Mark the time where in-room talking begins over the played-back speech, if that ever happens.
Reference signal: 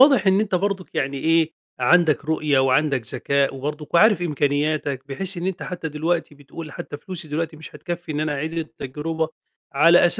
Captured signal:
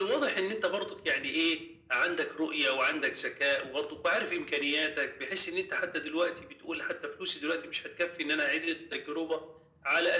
none

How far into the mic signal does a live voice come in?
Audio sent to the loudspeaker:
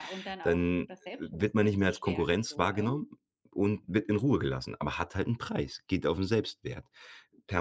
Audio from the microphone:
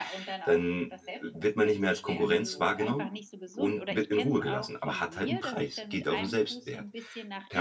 2.1 s

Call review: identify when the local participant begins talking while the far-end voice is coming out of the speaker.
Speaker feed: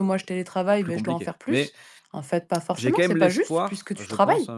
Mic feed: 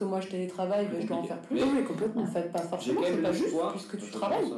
1.6 s

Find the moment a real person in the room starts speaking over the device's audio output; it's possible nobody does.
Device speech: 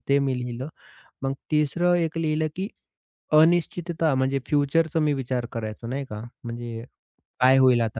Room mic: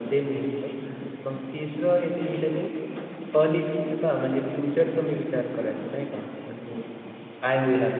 none

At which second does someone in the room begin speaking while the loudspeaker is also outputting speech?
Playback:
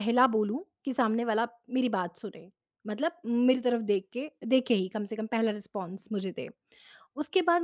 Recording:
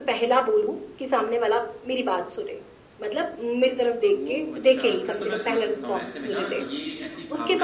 4.1 s

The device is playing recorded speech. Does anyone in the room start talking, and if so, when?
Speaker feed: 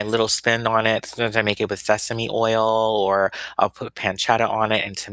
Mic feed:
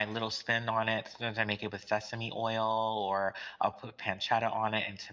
none

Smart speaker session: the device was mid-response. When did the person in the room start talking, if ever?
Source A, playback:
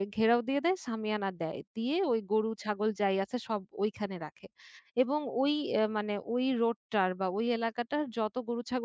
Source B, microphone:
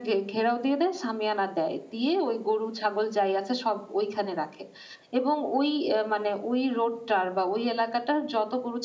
none

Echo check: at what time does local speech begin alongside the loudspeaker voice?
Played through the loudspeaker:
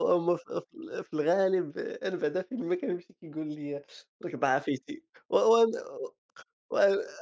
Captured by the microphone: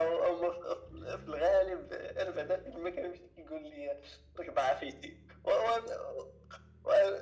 none

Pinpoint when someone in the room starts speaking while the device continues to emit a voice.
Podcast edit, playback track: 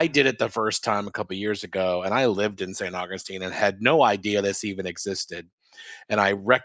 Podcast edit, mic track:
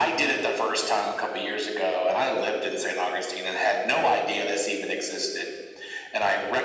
none

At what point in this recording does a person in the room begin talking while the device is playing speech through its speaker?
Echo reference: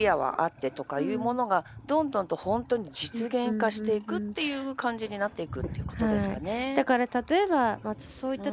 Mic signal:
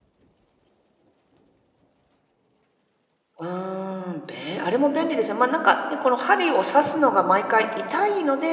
3.4 s

